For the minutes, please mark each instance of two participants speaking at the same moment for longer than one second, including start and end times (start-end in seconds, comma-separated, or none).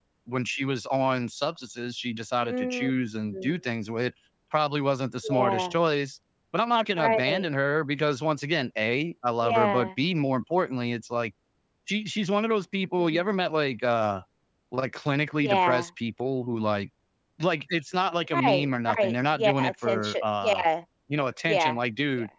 18.3-20.6